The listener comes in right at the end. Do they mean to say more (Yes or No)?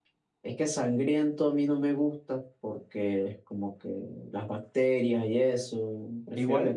Yes